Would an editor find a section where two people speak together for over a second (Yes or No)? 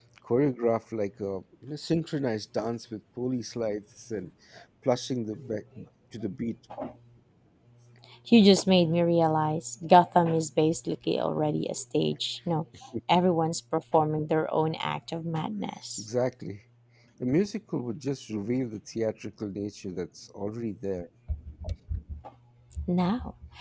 No